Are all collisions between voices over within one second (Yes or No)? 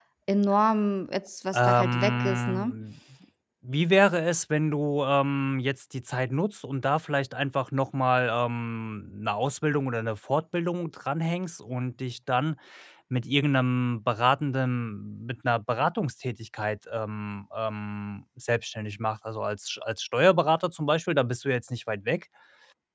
No